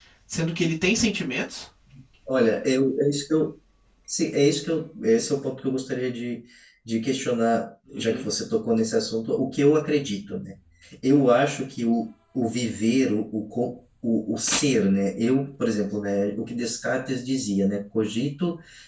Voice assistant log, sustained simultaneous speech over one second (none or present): none